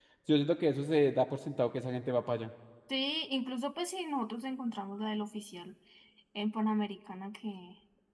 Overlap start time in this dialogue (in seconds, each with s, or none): none